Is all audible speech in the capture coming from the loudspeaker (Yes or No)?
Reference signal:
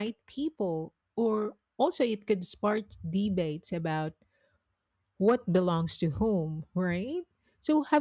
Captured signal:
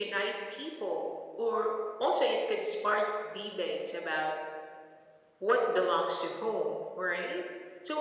Yes